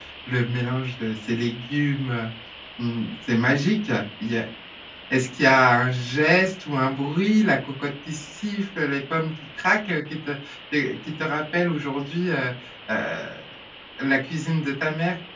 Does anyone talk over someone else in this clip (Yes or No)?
No